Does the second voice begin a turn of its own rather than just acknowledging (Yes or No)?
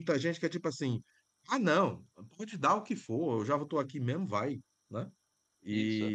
No